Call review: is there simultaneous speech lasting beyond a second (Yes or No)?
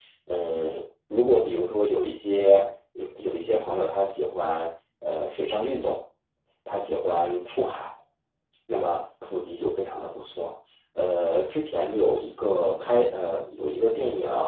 No